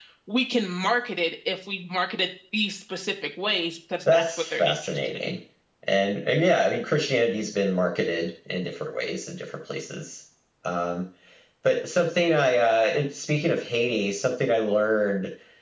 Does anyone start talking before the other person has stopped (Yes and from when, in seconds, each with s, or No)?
Yes, from 4.1 s